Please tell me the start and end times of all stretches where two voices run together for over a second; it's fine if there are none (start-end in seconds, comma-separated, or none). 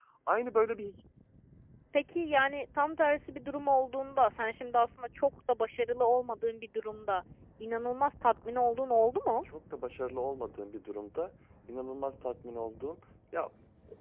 none